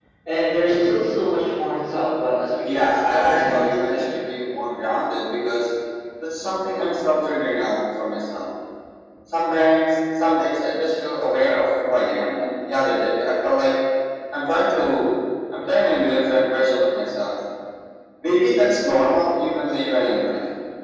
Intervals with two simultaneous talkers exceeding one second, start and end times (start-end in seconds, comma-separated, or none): 2.6-4.2